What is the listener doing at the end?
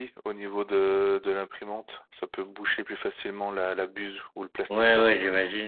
taking over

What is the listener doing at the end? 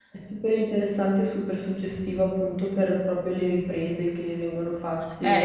taking over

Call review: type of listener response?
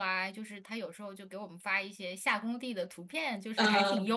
listening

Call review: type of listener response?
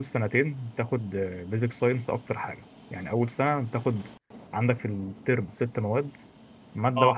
listening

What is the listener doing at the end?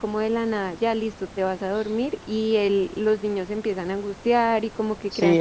taking over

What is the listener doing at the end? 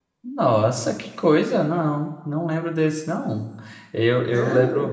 listening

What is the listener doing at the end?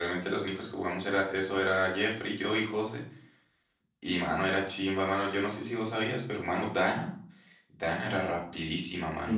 taking over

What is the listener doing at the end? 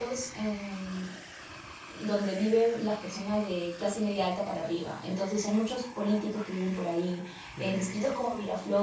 listening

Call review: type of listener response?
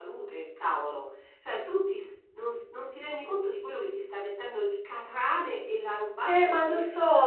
taking over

